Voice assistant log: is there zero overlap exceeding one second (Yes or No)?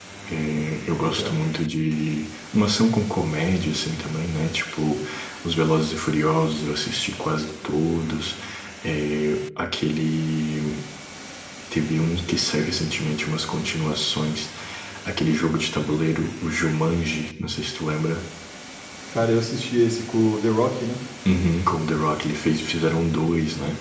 Yes